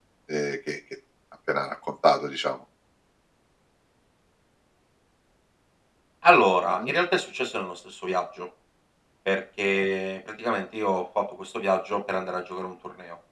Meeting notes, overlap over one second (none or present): none